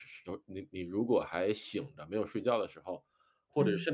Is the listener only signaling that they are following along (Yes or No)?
Yes